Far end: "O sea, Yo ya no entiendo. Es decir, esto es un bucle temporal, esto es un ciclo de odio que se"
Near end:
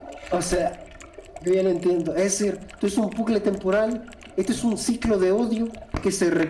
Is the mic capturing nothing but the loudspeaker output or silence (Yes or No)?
Yes